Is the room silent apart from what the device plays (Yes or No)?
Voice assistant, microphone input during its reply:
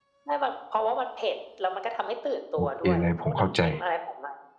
No